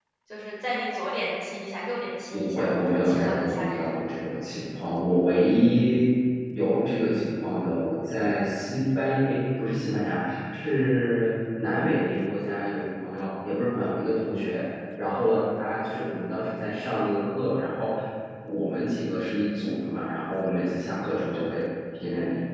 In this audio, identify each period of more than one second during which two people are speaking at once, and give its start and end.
2.3-4.0

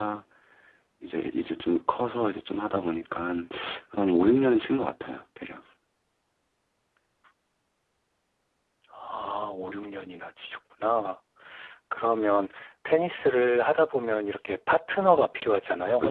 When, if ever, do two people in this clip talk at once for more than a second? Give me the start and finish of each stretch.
none

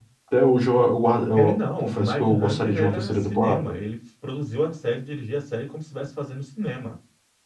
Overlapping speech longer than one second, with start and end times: 1.3-3.8

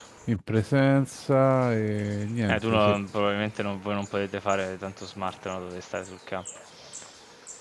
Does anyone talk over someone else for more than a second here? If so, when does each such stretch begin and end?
none

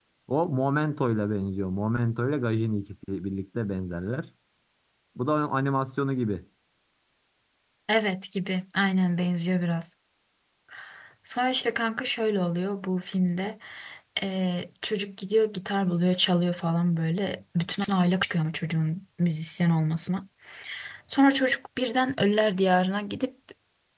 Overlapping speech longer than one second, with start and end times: none

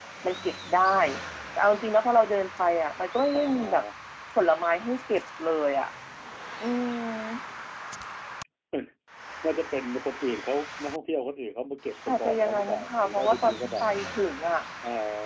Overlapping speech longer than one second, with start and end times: 12.1-13.8

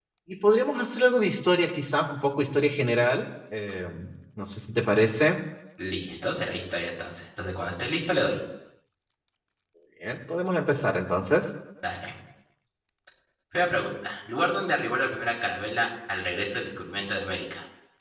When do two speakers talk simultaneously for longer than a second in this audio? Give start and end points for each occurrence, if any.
none

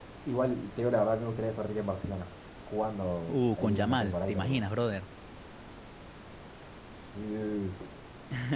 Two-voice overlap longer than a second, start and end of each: 3.3-4.7

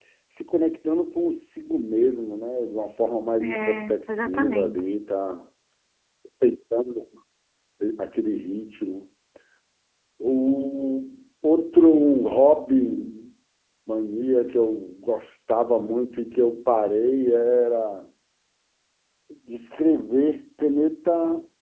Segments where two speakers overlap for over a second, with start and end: 3.4-5.0

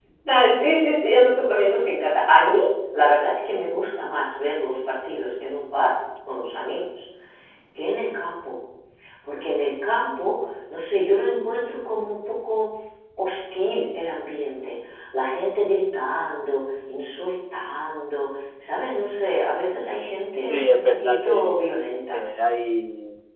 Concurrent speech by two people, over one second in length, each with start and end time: 20.5-21.7

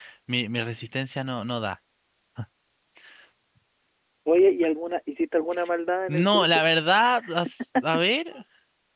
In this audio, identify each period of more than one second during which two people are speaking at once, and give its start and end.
none

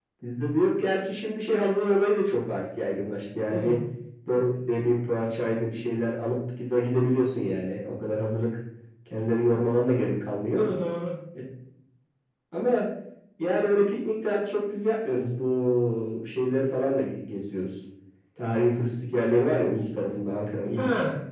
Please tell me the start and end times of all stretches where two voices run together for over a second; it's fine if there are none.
none

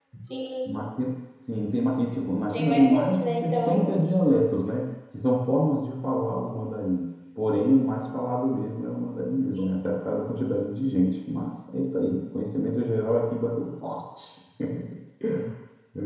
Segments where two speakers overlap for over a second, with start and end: 2.5-3.9

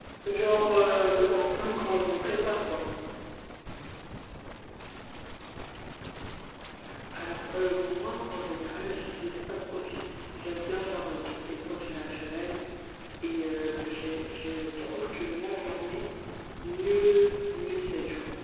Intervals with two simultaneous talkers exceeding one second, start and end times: 0.5-2.8

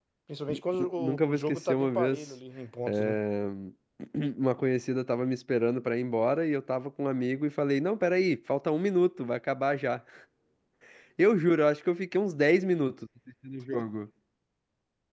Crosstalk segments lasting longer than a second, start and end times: 0.8-2.3

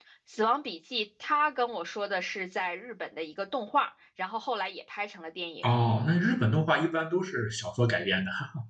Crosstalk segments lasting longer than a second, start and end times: none

